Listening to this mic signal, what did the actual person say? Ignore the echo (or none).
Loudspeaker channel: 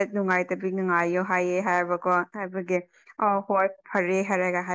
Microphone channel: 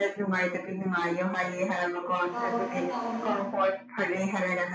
ꯇꯧꯕꯅꯦ ꯇꯧꯕꯅꯦ